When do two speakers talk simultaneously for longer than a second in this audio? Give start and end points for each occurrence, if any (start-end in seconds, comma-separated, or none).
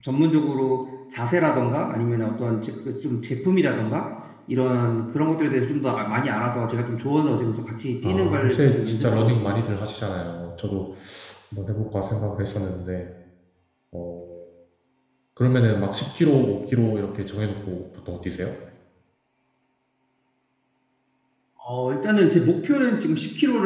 8.0-9.6